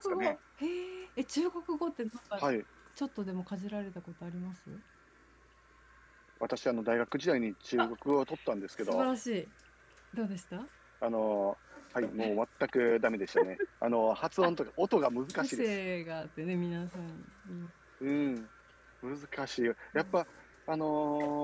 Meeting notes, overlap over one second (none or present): none